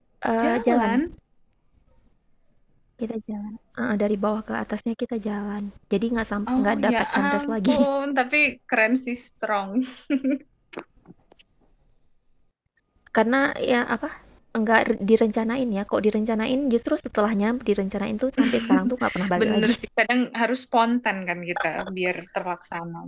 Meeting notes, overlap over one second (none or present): present